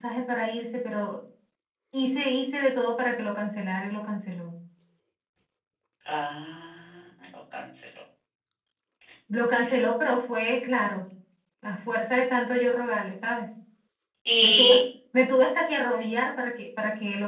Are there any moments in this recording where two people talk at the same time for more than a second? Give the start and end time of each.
none

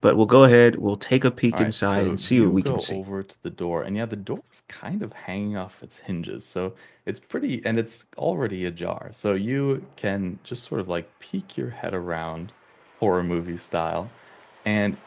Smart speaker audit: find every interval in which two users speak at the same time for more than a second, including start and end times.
1.5-3.0

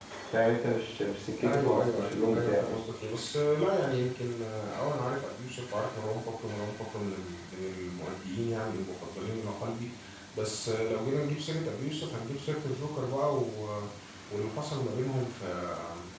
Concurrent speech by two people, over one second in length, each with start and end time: 1.4-2.8

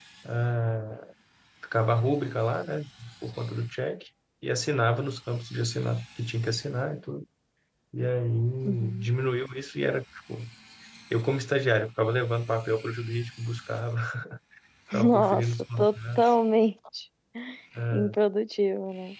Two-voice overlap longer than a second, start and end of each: 15.0-16.3

